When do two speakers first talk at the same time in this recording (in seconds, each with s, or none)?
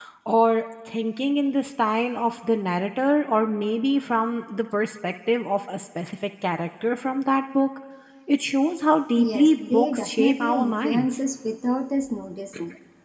9.2 s